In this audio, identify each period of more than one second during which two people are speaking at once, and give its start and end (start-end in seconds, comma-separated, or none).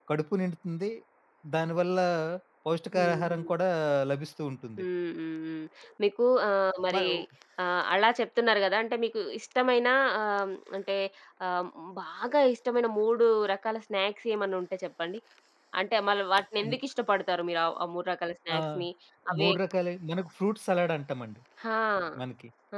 none